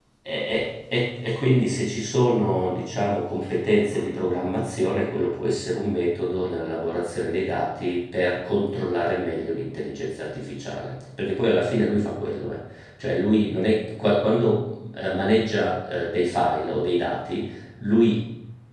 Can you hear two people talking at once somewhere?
No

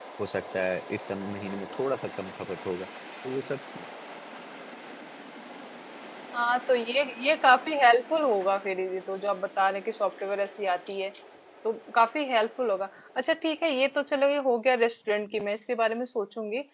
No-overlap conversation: Yes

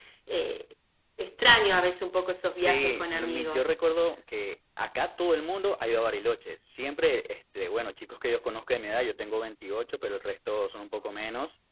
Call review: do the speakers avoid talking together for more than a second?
No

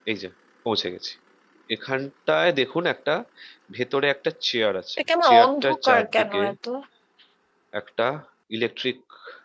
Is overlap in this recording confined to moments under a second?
No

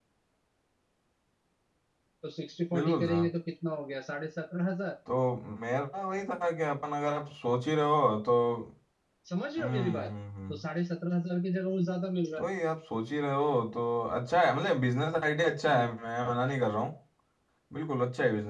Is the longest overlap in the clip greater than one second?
No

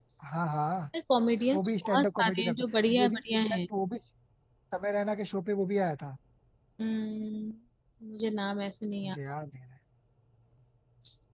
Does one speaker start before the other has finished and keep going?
Yes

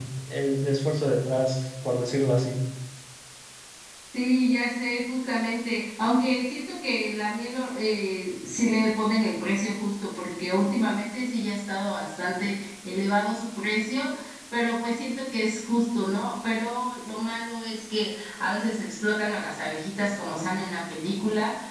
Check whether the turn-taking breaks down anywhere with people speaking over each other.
No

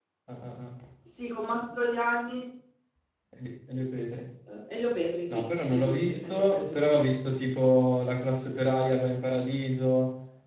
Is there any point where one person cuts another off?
Yes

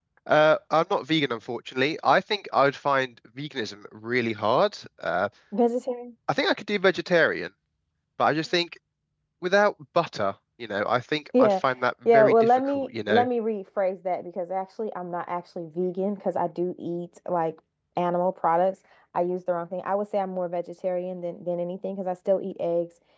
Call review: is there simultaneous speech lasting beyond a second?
Yes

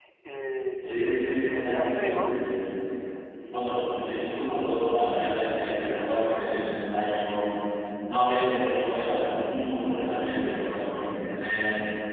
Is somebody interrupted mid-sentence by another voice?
Yes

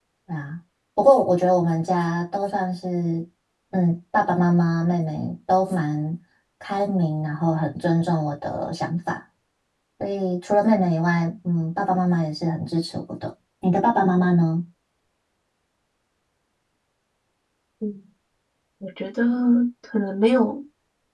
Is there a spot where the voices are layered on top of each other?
No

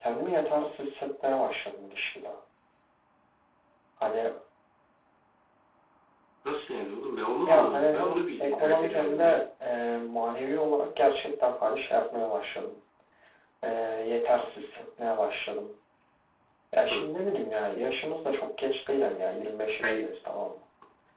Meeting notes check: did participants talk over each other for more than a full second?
Yes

